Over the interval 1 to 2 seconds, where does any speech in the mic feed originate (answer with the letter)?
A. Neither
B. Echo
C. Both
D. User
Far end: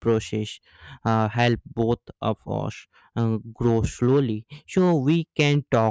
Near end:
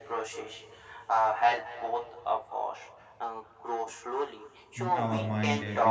B